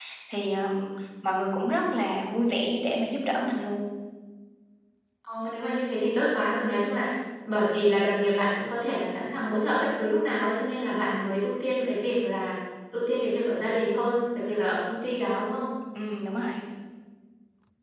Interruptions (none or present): none